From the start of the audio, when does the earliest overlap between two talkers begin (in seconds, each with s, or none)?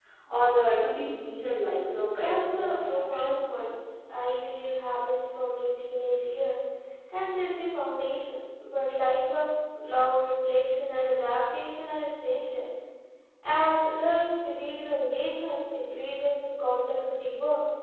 2.1 s